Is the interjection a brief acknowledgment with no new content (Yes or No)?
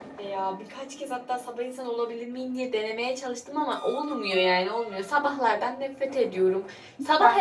Yes